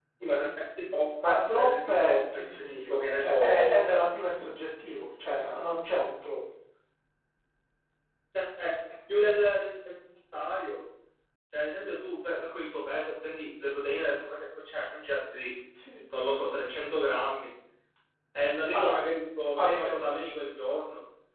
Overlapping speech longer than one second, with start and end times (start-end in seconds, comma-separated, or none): 1.2-3.8